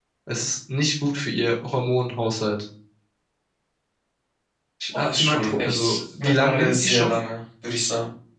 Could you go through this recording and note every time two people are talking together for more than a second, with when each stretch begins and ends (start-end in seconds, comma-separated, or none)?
4.9-7.2